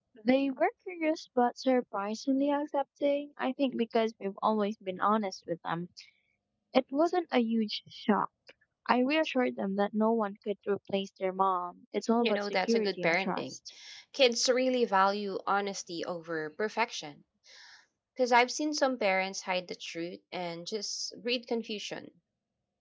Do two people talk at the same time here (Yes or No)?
Yes